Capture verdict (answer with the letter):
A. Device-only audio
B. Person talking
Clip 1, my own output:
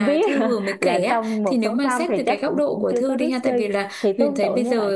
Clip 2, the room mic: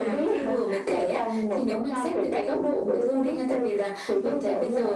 A